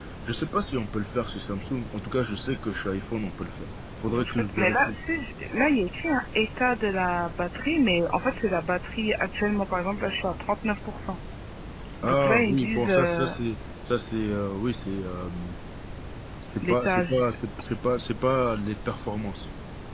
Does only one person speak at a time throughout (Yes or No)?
No